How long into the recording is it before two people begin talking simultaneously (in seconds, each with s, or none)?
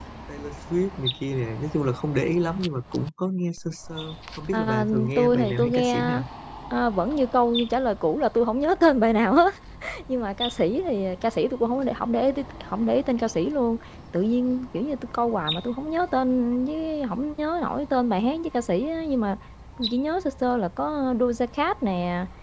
4.5 s